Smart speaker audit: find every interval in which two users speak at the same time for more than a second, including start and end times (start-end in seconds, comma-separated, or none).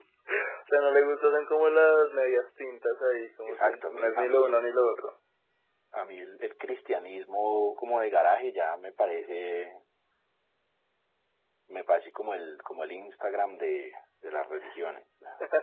3.5-4.7